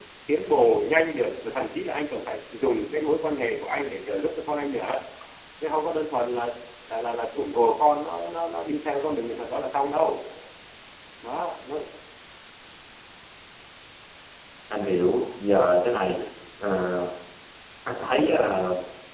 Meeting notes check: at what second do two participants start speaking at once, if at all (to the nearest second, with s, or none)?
none